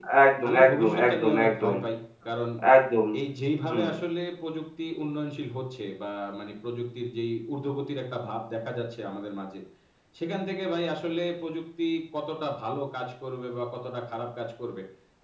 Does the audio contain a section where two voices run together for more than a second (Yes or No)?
Yes